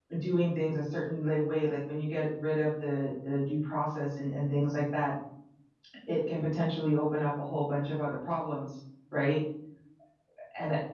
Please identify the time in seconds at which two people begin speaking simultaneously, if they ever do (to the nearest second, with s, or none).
none